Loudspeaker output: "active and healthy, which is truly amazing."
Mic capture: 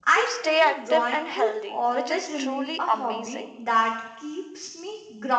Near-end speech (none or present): present